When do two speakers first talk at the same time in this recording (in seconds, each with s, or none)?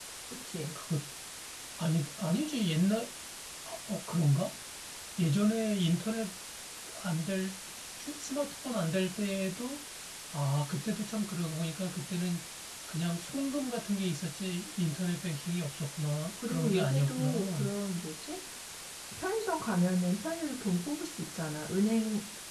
16.4 s